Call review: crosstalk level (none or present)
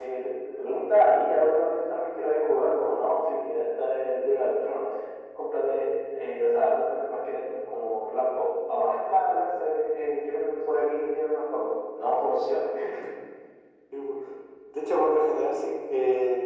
none